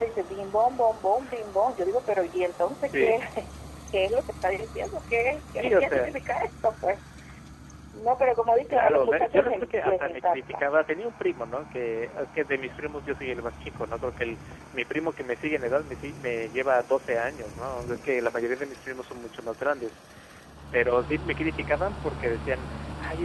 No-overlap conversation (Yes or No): No